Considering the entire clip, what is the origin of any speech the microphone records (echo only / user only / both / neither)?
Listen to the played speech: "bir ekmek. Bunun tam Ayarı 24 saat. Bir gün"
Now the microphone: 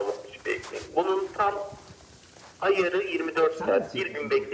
both